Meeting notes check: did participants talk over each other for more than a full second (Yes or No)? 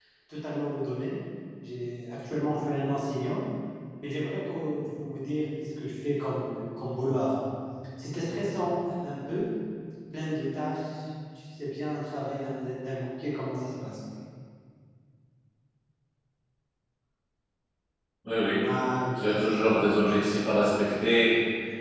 No